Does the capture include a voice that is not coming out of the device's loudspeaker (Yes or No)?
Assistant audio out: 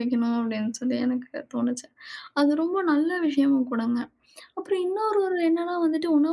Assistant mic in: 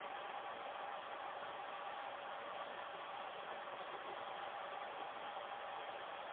No